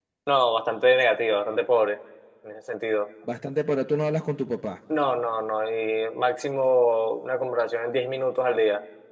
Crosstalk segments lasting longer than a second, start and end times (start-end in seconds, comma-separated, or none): none